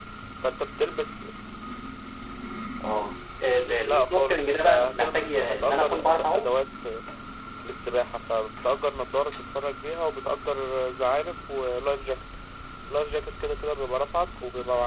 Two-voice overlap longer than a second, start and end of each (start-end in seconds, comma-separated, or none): 3.8-6.5